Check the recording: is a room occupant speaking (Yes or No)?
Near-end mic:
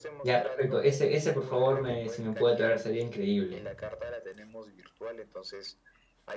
Yes